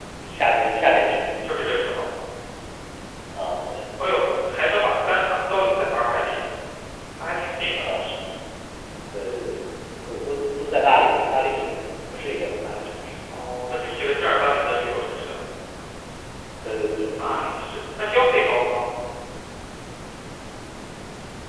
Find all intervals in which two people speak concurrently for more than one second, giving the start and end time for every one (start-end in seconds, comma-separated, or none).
none